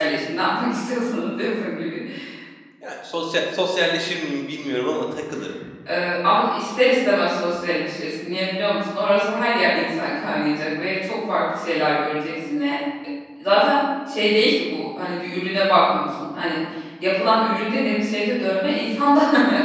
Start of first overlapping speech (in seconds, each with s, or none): none